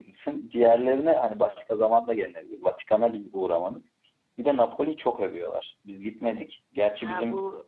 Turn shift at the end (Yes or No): Yes